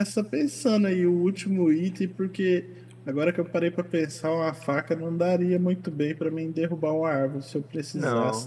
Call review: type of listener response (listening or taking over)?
listening